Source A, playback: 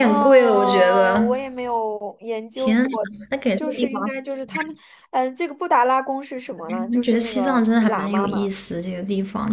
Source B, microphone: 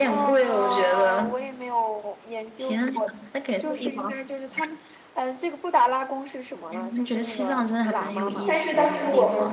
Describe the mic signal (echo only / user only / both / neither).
both